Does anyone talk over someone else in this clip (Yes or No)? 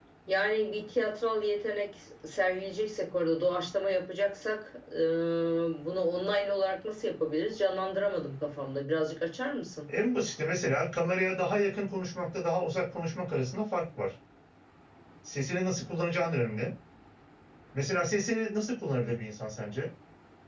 No